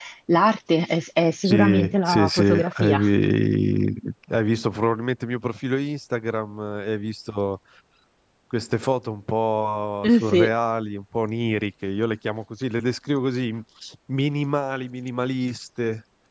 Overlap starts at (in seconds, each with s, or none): 1.4 s